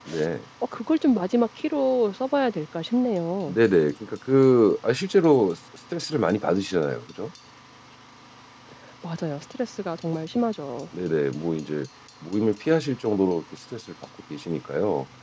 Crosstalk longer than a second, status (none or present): none